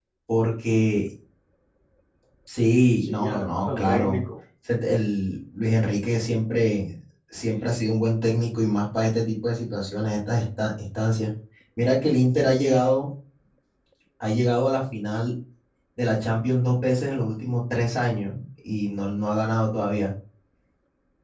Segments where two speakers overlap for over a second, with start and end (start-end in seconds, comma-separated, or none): 3.0-4.2